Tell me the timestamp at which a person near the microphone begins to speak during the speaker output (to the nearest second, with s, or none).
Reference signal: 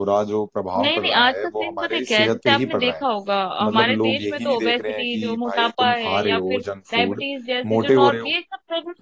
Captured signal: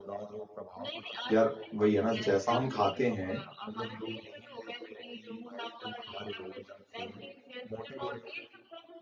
1 s